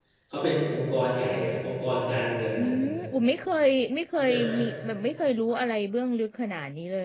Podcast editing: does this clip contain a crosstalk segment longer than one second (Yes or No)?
No